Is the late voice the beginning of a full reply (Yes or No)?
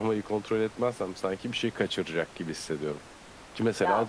No